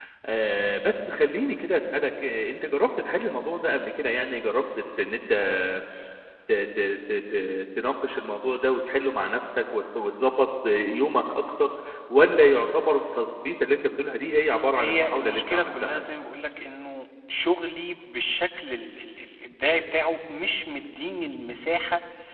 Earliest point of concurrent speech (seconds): 14.7 s

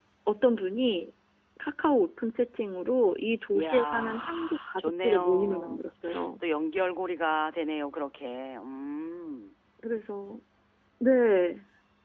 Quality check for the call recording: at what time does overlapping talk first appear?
3.5 s

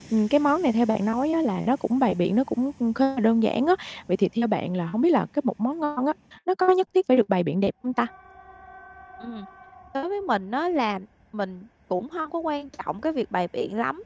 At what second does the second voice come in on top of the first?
none

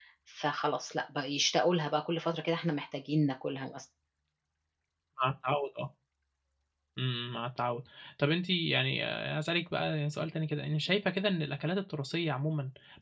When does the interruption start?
none

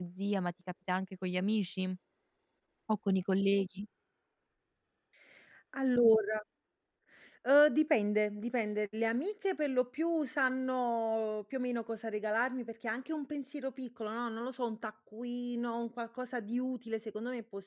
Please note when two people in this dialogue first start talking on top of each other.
none

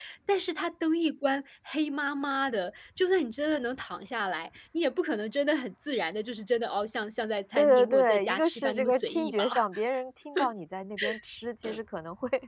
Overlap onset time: 7.6 s

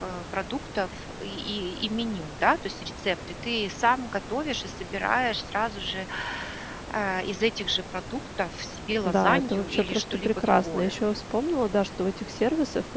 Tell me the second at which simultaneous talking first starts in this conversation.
9.0 s

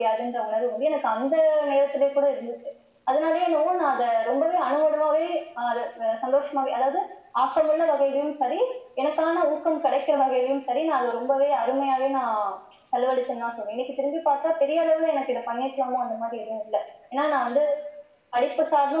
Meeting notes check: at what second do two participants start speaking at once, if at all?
none

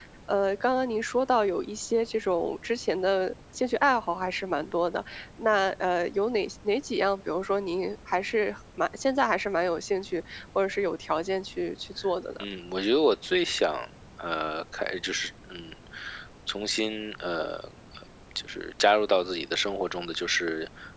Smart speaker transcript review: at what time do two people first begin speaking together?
none

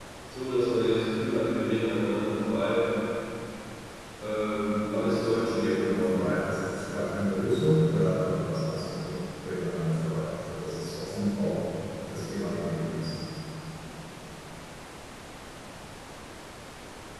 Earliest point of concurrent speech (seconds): 5.0 s

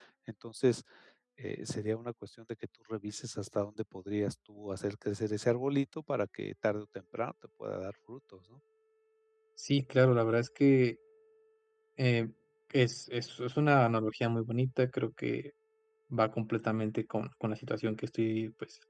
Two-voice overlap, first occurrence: none

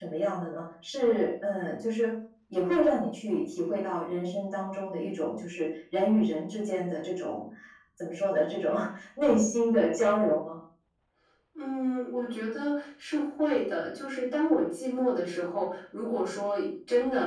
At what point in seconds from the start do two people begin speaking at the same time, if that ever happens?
none

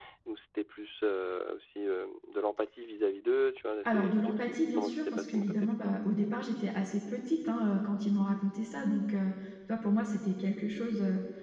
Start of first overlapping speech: 3.8 s

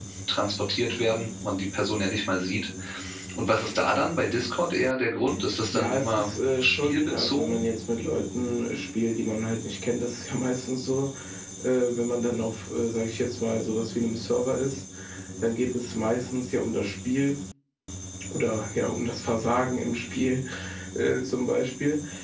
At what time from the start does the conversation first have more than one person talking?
5.7 s

